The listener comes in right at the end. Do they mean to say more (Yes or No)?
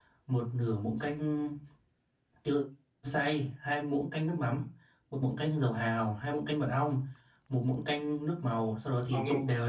Yes